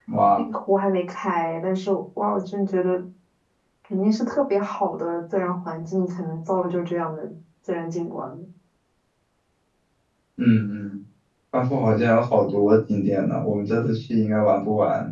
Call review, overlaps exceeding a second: none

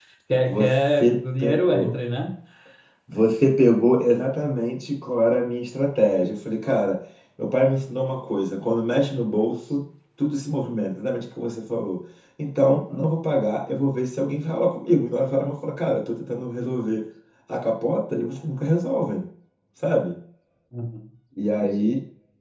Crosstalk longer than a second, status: present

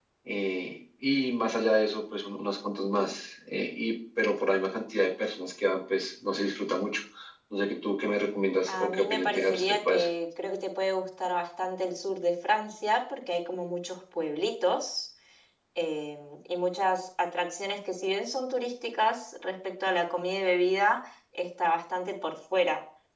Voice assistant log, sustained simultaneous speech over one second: present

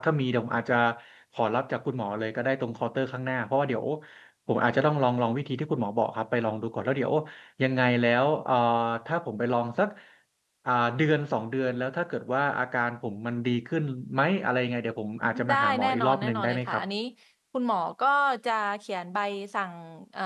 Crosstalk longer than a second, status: present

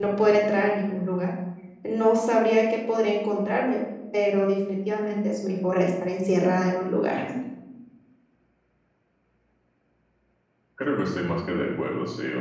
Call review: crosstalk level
none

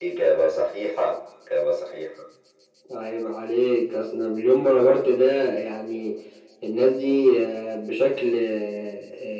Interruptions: none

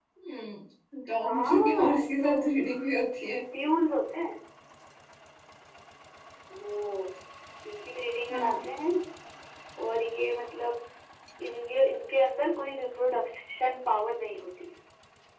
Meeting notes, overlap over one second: present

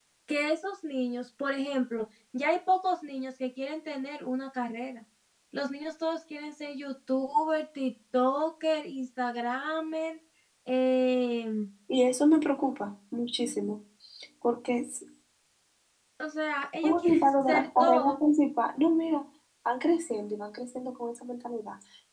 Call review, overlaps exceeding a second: present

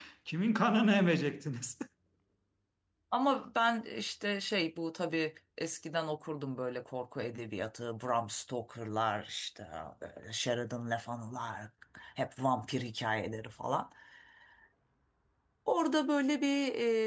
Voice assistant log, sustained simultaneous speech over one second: none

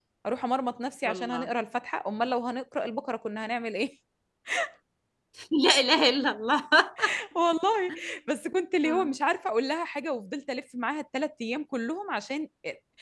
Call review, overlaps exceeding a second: none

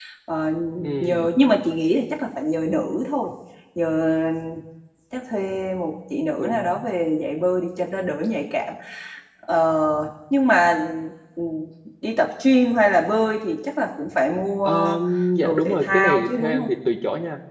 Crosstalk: present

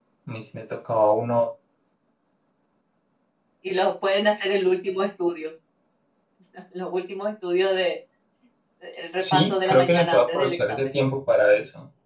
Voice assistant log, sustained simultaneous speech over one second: present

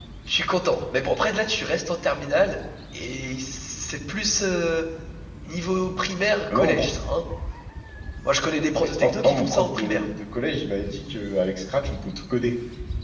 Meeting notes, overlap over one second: present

